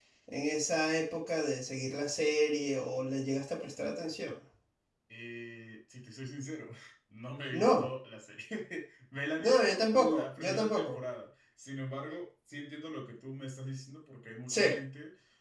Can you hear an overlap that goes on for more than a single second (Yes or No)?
Yes